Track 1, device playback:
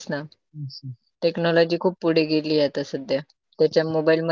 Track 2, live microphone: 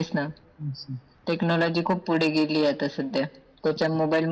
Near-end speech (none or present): none